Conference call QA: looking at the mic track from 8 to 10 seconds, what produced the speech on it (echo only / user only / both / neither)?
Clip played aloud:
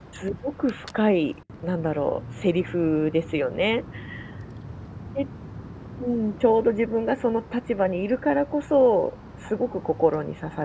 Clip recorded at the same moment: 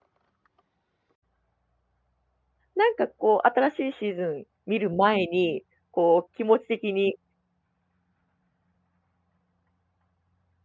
neither